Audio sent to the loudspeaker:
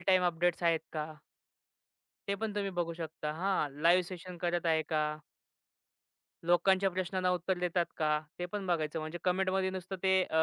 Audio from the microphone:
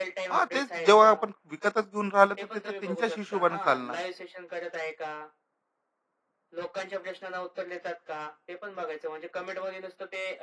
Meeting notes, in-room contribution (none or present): present